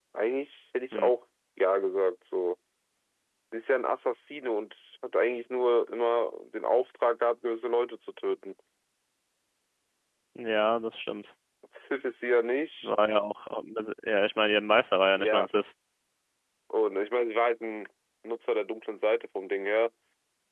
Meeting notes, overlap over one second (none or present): none